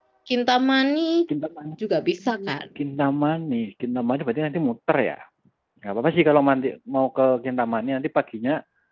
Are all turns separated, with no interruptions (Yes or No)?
Yes